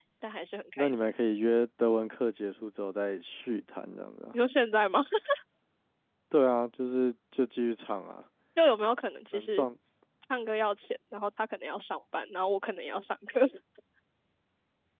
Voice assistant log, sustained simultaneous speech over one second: none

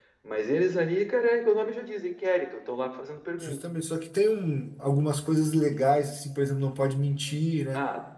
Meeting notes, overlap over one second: none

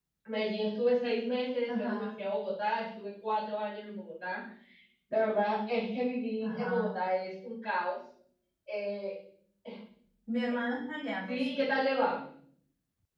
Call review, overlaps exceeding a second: none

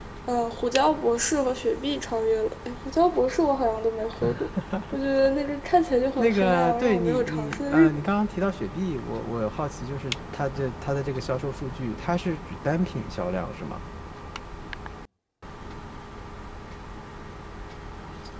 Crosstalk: present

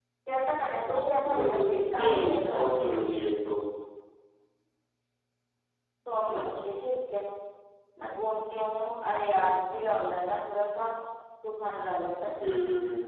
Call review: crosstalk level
present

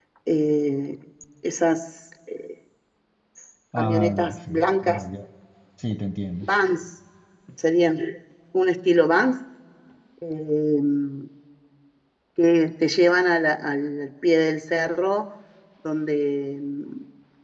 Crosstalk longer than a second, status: present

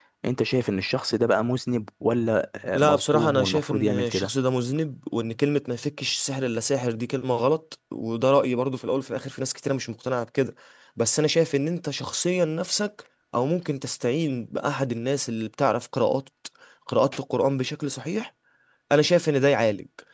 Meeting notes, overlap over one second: present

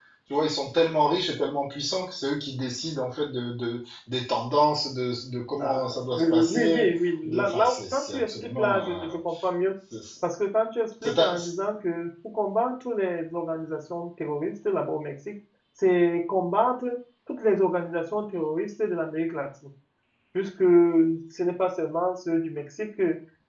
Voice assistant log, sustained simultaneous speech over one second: present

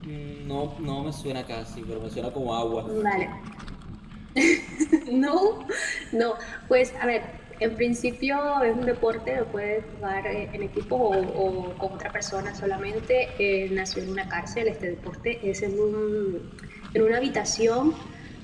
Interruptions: none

